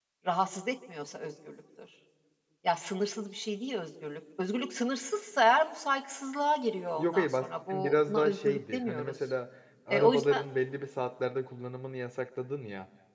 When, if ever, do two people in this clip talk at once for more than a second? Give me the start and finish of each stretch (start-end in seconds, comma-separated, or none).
6.9-9.1